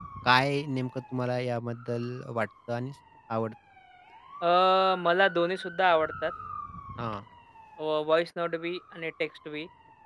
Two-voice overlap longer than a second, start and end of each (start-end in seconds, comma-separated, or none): none